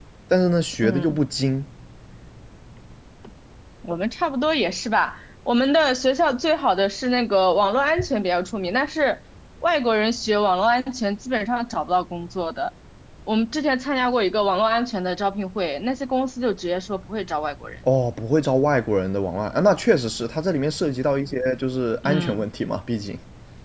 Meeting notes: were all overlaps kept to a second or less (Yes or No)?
Yes